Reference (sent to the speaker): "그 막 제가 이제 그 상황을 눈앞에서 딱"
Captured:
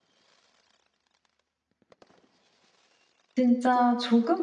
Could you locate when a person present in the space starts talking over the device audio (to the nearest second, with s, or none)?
3 s